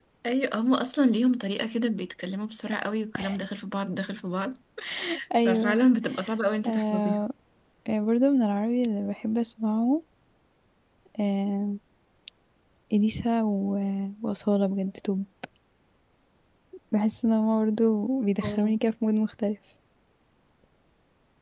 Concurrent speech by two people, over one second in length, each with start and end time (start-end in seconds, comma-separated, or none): none